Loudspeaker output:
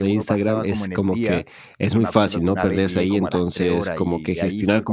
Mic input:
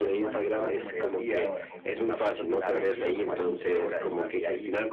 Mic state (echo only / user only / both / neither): both